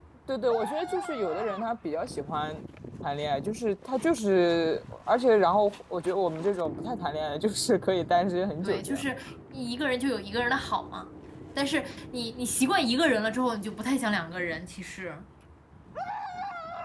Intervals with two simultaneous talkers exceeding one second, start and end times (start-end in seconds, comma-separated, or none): none